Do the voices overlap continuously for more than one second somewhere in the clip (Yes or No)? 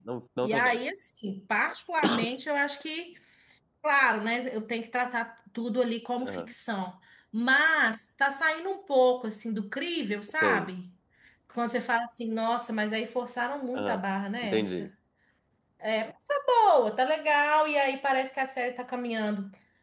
No